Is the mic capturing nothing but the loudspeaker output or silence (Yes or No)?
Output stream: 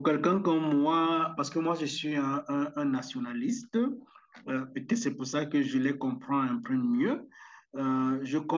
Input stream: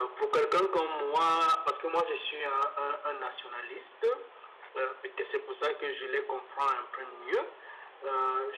Yes